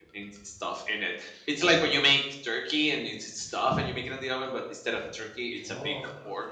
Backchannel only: No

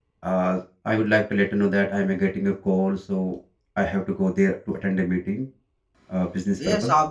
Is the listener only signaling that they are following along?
No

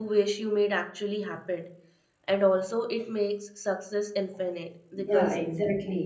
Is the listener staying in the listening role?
No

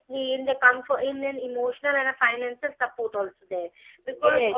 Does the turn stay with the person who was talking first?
Yes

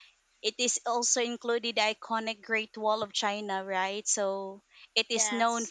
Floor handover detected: No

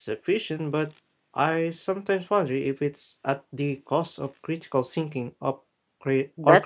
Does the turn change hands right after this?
Yes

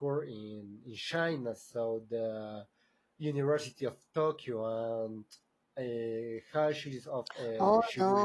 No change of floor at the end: No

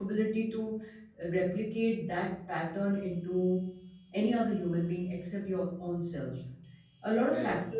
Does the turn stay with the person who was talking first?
Yes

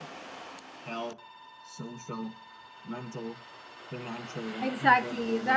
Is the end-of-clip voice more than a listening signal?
Yes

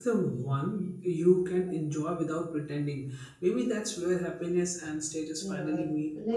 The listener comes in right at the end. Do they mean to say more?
Yes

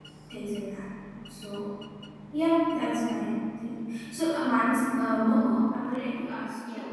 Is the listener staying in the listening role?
Yes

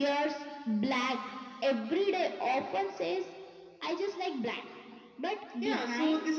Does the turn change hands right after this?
Yes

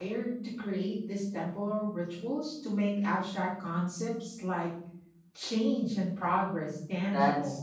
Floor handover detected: Yes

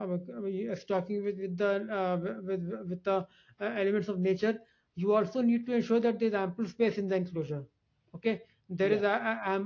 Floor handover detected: No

